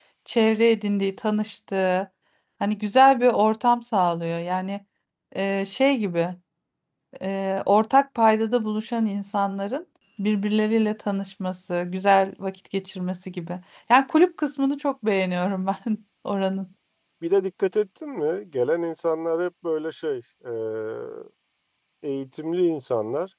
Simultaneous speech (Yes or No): No